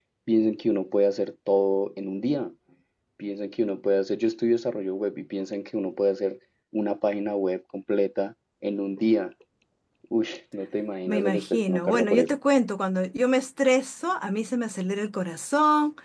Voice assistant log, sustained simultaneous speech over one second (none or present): present